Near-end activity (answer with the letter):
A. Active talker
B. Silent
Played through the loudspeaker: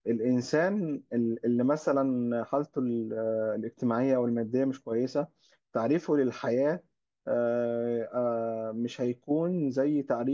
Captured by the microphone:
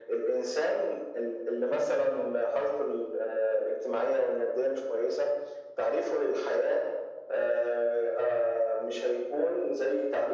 B